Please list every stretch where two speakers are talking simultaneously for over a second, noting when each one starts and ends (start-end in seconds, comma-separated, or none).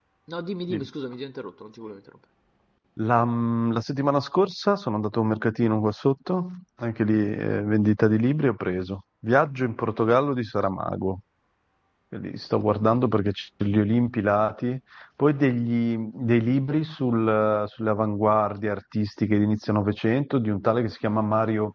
none